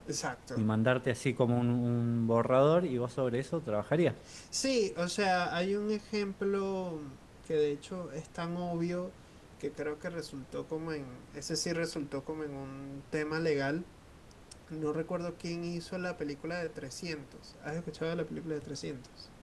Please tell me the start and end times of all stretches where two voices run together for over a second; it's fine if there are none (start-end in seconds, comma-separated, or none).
none